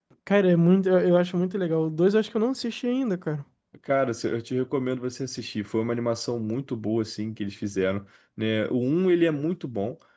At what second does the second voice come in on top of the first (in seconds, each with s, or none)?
none